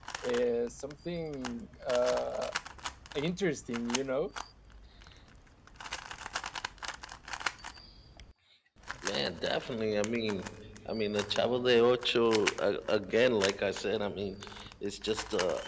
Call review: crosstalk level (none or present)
none